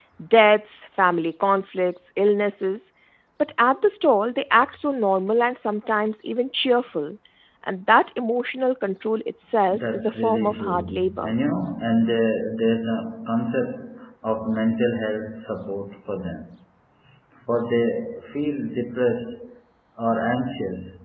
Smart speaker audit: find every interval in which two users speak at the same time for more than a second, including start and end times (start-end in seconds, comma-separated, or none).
9.7-11.3